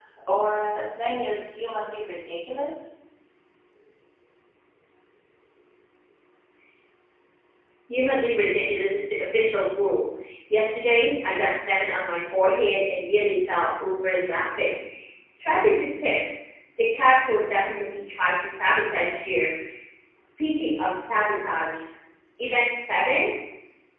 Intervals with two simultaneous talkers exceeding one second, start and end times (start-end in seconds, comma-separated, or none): none